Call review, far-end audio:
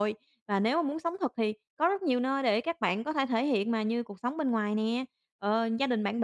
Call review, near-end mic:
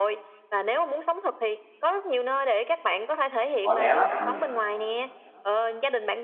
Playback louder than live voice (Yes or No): No